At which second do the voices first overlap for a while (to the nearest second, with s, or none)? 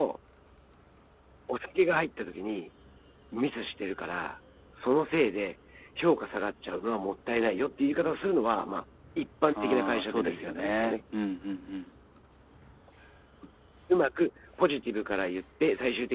10 s